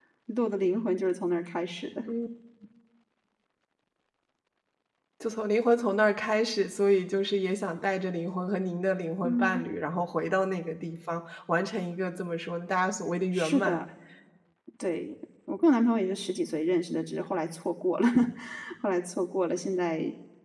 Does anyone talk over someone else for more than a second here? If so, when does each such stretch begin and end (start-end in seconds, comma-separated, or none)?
none